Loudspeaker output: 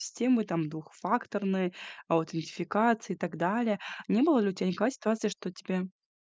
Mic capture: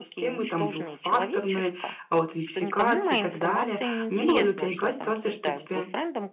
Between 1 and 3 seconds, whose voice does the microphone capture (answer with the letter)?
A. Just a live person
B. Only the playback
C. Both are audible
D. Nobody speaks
C